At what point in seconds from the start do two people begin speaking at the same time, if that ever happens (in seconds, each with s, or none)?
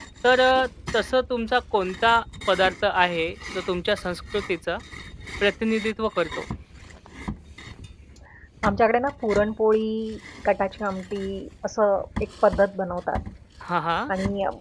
none